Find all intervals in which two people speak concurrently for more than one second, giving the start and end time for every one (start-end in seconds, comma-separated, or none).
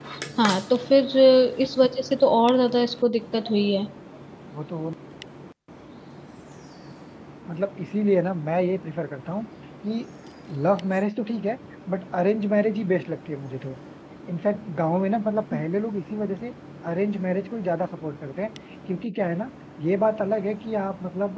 none